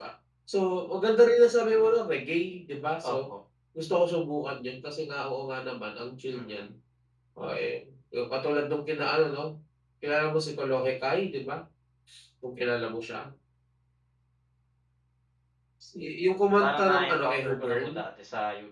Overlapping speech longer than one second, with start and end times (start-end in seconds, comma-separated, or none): 16.6-17.9